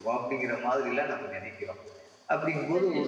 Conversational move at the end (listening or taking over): listening